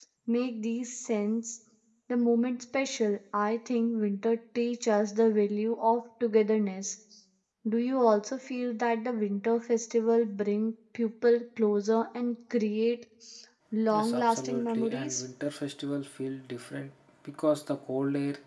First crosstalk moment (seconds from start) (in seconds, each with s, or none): 13.9 s